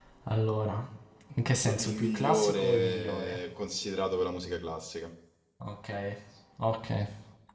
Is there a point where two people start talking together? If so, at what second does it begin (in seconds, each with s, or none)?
1.5 s